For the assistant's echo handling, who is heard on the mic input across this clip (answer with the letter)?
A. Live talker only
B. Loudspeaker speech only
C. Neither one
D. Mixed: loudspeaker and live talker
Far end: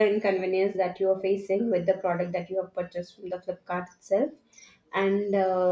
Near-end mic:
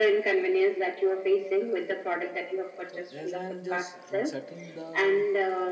D